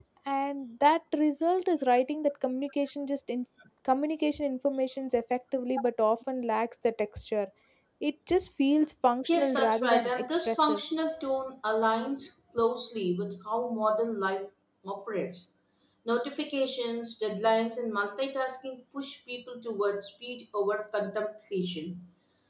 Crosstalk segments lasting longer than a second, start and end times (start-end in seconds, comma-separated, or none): 9.3-10.8